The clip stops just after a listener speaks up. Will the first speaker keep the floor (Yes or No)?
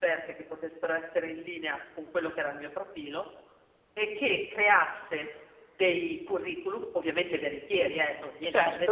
Yes